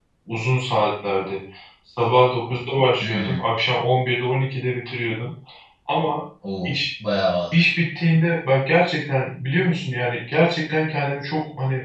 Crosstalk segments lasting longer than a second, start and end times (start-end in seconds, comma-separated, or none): none